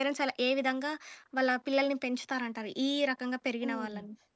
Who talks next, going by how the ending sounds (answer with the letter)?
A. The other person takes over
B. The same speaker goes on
A